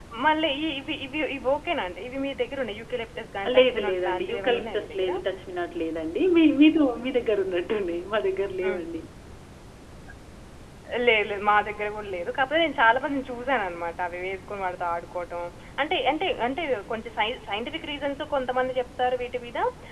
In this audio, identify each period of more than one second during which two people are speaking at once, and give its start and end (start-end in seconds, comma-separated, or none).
3.6-5.1